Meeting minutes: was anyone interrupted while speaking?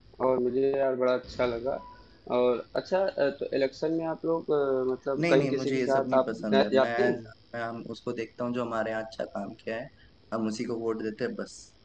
Yes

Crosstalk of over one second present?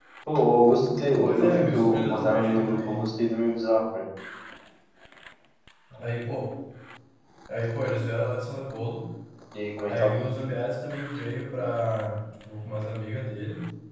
Yes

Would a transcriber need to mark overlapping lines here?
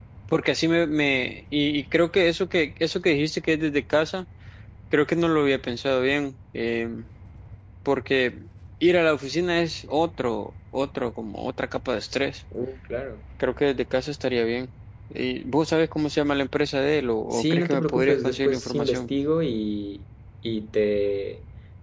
Yes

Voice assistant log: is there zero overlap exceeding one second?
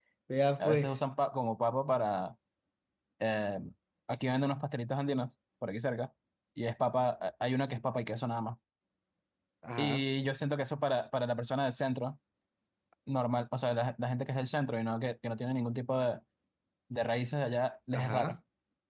Yes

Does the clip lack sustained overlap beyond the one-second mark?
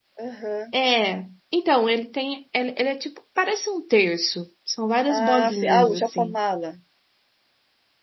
No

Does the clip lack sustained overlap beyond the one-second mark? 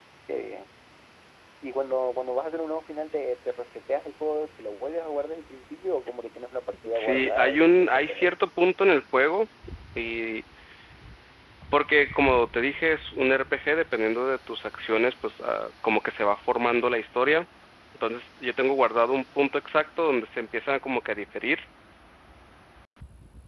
No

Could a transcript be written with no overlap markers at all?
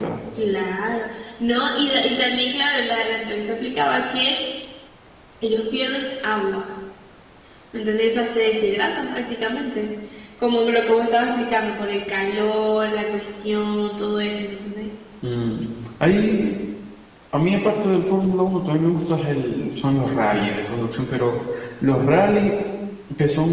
Yes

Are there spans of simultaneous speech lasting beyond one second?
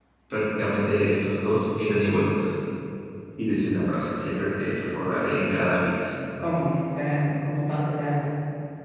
No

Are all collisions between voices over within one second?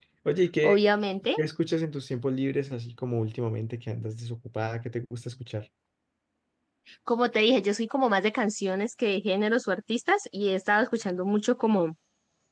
Yes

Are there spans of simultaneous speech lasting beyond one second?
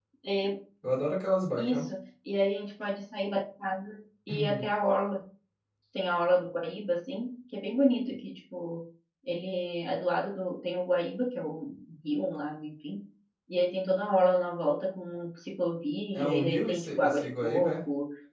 Yes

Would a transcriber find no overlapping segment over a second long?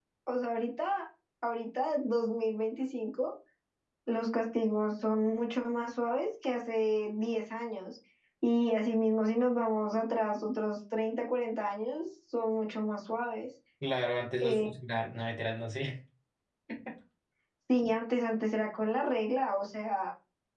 Yes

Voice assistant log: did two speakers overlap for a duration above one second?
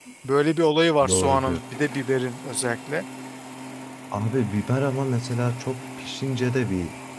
No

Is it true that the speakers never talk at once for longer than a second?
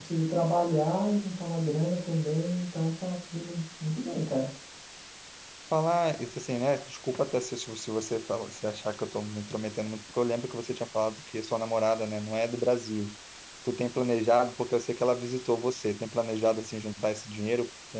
Yes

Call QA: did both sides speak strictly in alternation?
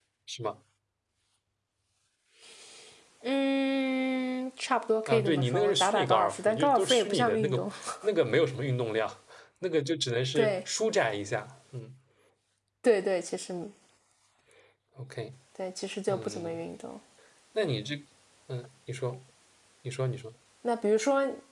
No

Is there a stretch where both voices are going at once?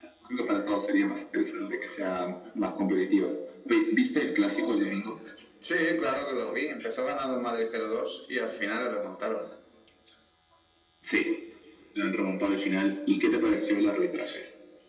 No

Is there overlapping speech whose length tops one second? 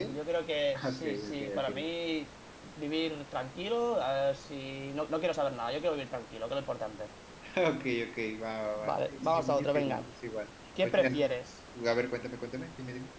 Yes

